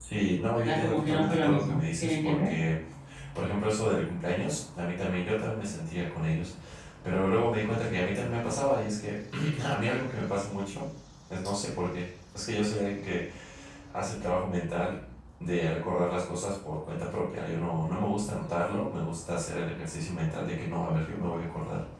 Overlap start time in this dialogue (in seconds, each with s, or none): 0.6 s